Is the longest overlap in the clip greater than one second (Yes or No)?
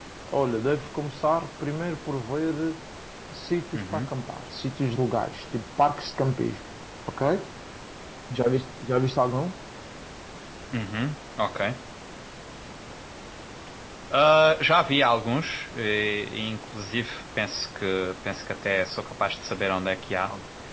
No